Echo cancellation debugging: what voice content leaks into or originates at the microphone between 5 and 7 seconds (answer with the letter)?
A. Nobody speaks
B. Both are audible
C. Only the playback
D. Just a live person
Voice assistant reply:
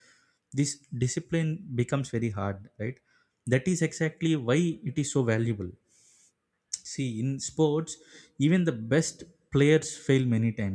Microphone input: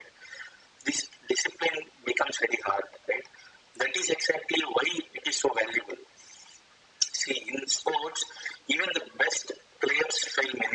C